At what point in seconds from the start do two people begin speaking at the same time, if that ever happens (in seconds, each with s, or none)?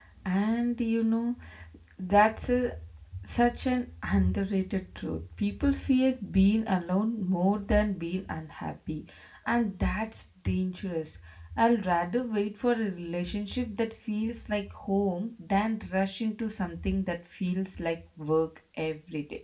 none